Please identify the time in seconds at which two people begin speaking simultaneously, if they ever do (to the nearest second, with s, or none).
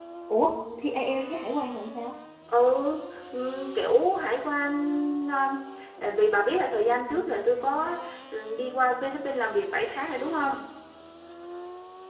none